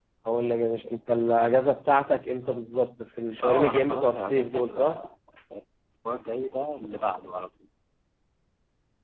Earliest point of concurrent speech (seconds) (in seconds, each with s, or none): 3.4 s